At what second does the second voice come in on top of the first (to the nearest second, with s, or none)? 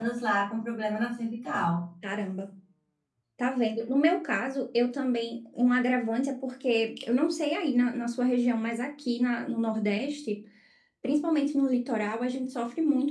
none